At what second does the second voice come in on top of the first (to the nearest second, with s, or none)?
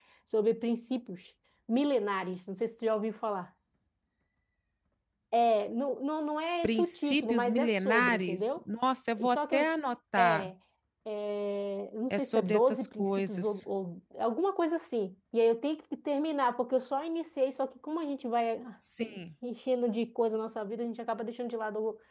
7 s